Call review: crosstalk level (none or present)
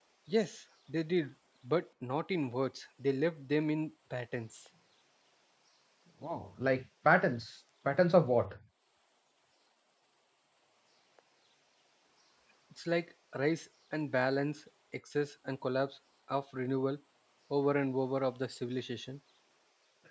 none